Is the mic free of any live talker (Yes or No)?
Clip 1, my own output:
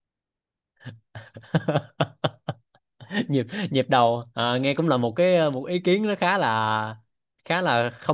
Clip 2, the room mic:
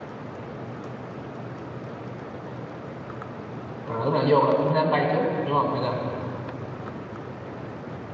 No